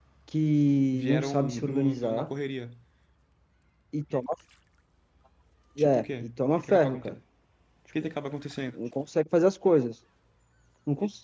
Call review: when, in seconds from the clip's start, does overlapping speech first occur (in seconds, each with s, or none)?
0.9 s